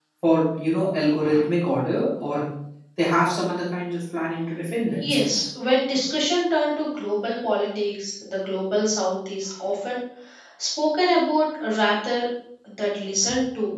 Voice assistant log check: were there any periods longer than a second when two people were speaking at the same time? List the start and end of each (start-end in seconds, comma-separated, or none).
none